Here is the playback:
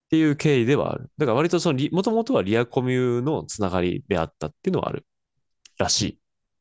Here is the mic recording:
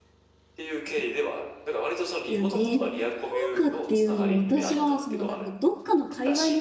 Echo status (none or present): present